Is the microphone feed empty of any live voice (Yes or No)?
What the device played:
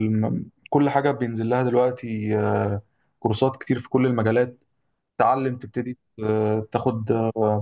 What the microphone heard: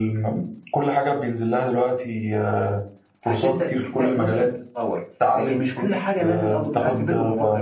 No